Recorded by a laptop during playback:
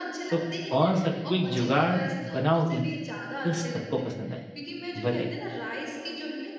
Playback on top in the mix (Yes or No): No